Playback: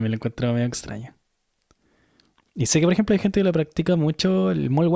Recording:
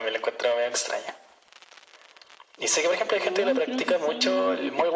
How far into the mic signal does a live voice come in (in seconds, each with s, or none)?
3.1 s